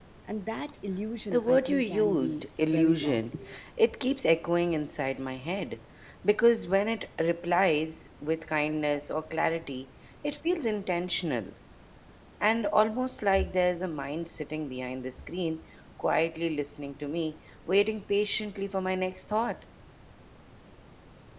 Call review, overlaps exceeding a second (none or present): present